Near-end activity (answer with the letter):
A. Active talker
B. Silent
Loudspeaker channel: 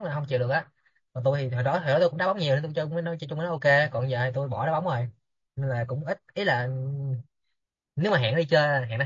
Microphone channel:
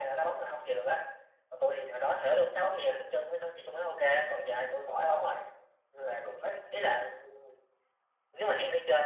A